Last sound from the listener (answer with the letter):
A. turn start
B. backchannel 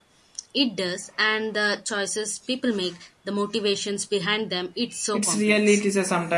A